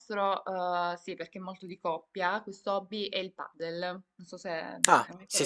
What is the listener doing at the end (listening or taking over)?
taking over